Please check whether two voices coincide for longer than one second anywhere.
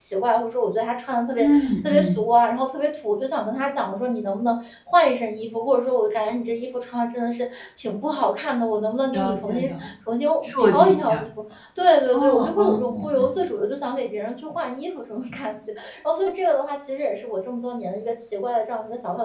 Yes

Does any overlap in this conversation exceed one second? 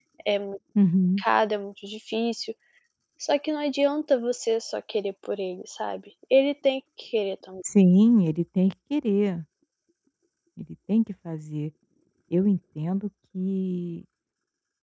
No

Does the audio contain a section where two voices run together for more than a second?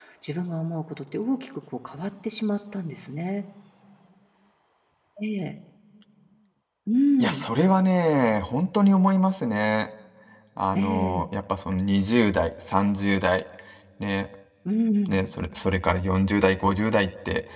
No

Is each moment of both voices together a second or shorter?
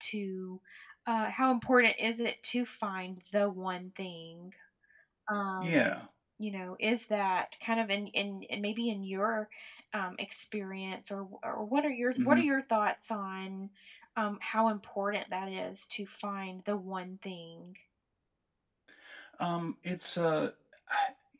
Yes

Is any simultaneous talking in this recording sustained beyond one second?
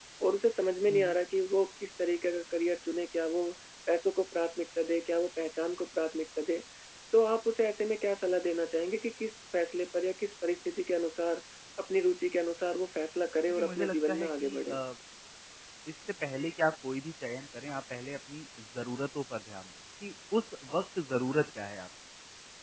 Yes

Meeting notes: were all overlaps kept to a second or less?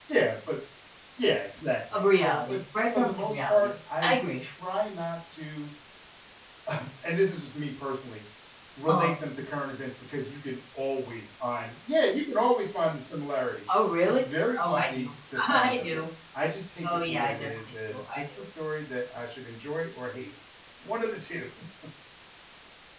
No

